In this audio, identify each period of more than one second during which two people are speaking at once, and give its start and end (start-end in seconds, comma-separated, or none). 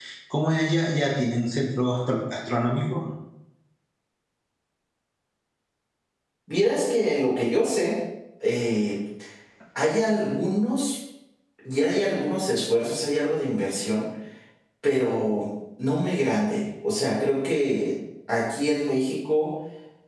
none